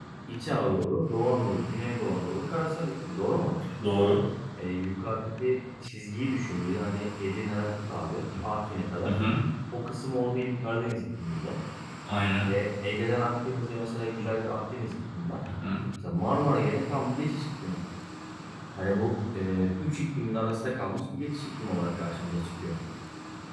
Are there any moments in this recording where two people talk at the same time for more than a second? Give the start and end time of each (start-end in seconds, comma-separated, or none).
none